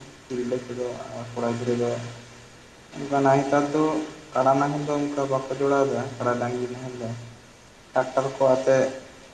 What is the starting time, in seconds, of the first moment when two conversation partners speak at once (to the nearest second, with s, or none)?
none